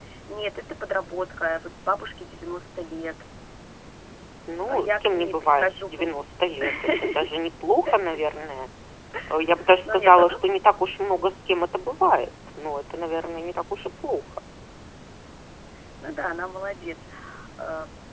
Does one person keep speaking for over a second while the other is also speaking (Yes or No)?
Yes